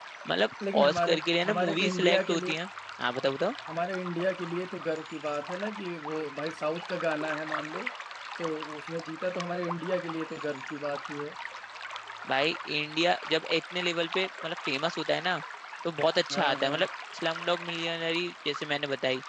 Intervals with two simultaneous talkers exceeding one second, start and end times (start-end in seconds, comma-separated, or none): 0.7-2.6